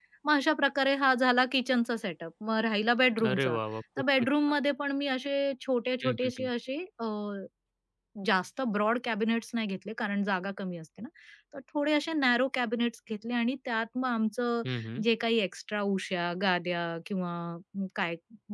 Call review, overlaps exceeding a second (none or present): none